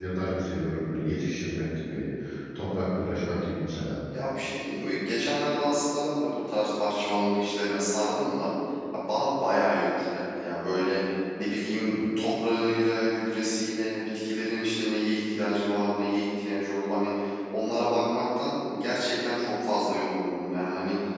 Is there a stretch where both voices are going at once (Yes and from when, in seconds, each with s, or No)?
No